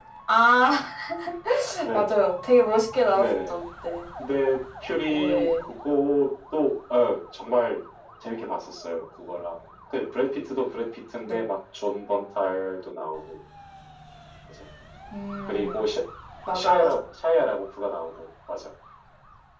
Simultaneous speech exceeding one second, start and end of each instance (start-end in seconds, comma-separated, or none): none